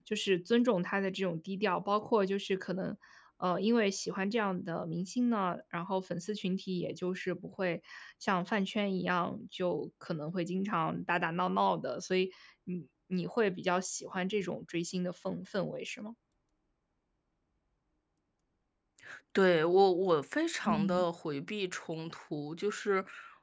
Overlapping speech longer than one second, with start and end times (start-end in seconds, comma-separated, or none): none